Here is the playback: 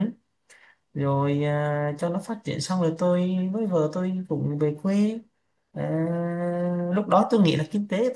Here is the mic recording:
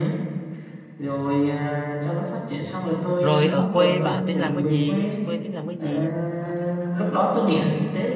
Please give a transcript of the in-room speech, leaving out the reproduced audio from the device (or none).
rồi ở quê bạn tính làm cái gì quê tính làm cái gì